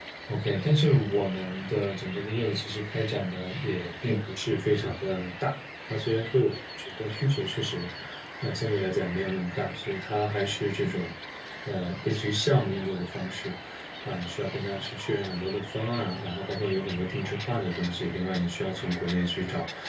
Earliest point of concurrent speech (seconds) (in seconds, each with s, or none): none